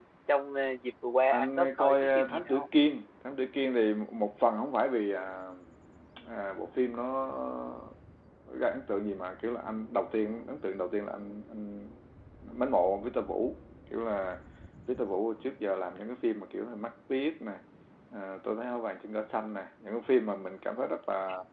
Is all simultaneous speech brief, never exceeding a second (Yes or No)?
No